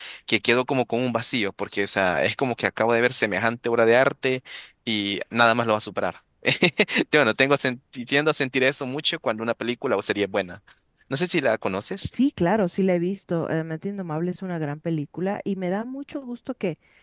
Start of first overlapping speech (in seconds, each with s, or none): none